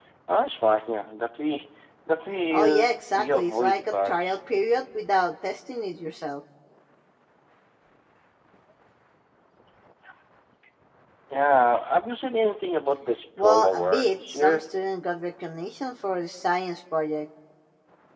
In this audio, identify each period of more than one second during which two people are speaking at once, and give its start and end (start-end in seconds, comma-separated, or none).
2.5-4.4, 13.4-14.6